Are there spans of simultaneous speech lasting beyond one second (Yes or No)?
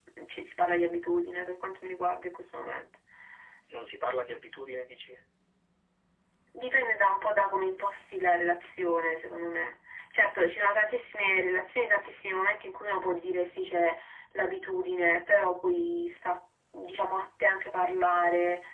No